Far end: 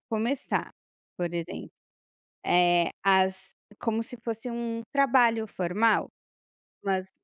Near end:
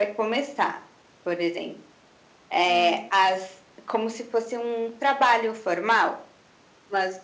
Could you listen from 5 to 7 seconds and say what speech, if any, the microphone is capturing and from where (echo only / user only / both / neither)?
echo only